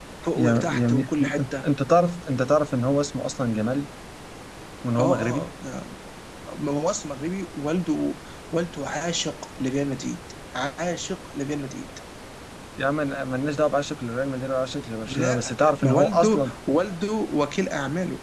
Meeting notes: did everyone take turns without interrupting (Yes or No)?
No